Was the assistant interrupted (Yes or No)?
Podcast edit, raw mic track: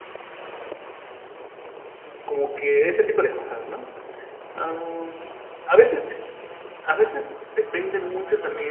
Yes